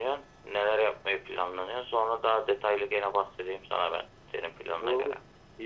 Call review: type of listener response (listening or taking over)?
taking over